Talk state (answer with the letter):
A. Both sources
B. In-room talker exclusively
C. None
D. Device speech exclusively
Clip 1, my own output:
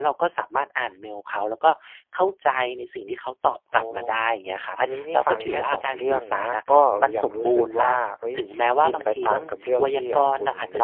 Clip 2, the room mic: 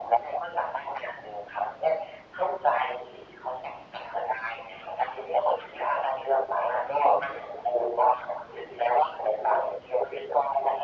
D